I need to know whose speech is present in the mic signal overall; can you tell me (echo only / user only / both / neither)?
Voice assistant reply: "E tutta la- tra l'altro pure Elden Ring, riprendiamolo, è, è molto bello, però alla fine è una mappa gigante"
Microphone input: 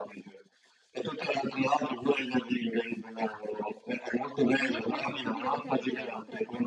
both